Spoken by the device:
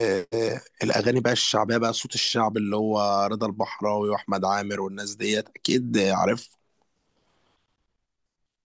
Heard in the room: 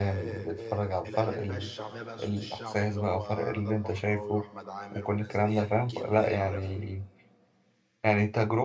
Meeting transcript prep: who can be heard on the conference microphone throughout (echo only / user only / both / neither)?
both